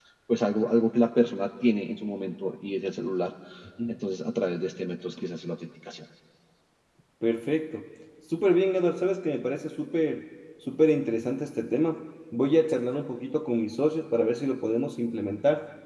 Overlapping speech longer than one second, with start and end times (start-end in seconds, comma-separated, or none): none